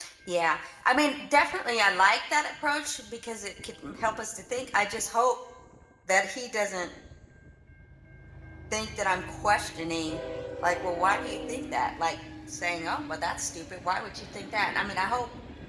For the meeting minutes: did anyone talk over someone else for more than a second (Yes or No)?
No